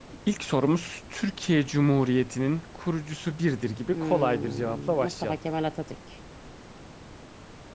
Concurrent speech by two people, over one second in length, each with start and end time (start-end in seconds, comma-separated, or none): 3.9-5.4